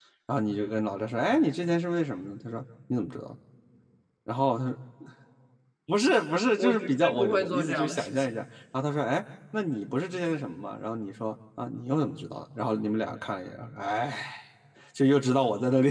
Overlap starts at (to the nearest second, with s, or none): 7 s